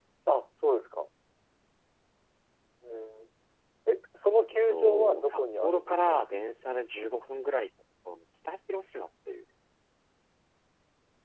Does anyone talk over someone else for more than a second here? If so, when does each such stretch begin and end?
4.5-6.2

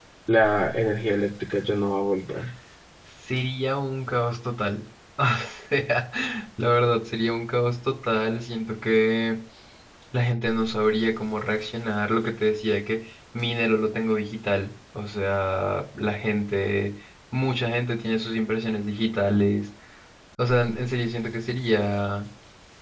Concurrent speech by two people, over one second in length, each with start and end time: none

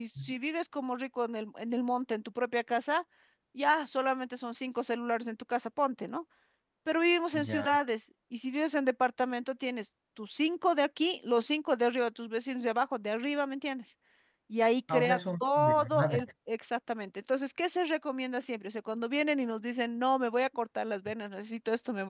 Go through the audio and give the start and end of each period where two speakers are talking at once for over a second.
14.9-16.2

